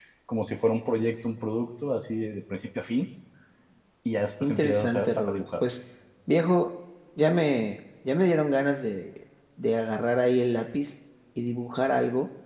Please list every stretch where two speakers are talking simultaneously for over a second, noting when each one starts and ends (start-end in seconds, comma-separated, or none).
4.4-5.6